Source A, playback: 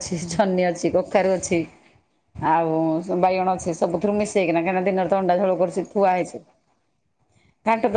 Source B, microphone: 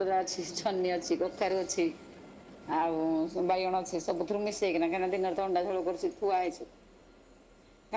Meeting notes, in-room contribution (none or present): none